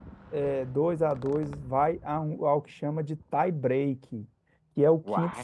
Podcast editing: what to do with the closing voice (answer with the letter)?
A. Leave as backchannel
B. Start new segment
A